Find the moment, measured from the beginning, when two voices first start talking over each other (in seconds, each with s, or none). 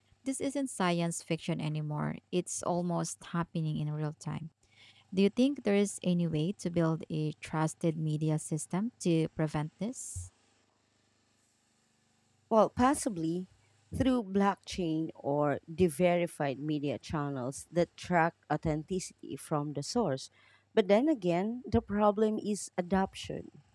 none